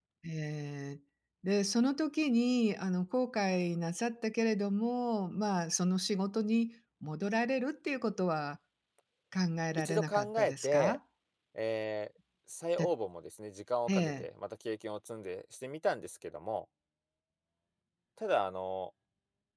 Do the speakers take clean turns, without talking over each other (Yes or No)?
No